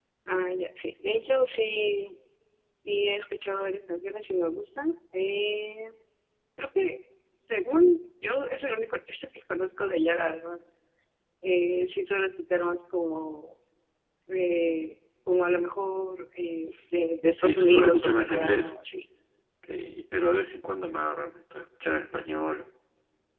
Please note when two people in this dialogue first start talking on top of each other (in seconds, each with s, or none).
17.4 s